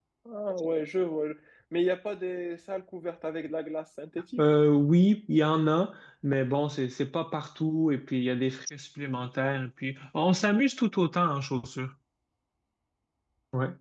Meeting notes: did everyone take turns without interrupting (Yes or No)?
Yes